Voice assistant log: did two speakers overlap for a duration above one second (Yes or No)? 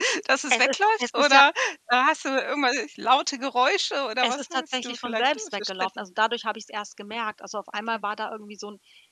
Yes